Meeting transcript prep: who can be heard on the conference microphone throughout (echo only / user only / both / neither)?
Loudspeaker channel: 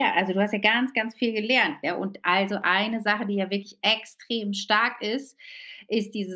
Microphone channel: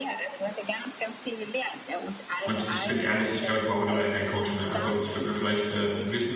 both